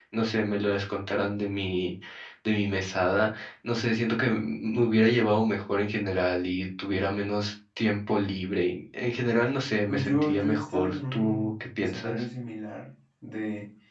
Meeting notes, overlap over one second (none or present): present